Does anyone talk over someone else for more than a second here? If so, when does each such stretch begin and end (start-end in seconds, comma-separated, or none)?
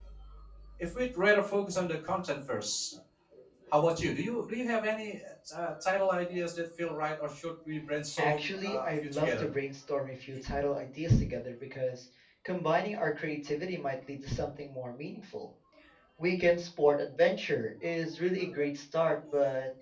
8.2-9.5